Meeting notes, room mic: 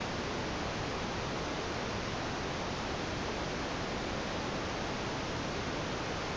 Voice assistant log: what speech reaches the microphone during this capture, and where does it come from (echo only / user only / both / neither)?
neither